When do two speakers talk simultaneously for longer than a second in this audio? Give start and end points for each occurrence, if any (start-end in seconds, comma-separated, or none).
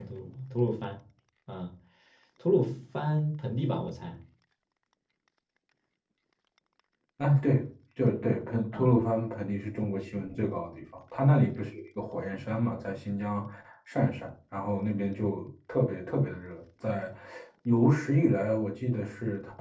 none